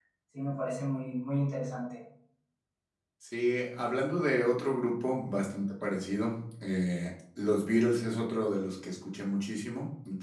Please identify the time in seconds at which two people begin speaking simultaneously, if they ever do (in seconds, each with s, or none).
none